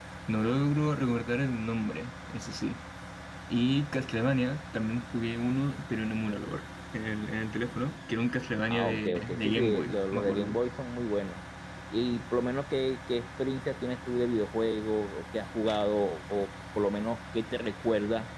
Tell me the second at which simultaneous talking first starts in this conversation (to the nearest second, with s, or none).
9 s